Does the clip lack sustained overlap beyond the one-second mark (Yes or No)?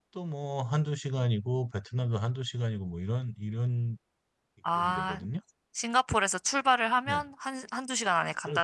Yes